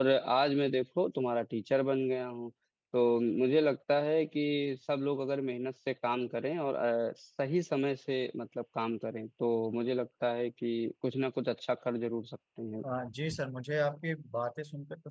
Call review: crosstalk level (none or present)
none